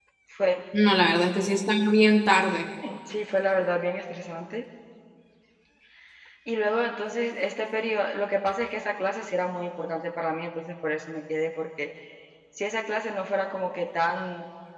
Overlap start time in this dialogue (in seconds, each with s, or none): none